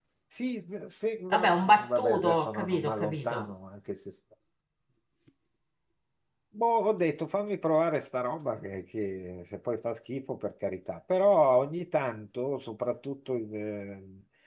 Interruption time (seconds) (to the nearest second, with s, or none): 1 s